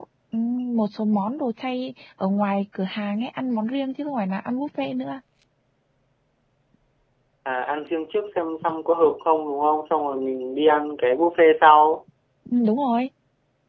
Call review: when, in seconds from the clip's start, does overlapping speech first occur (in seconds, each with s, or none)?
none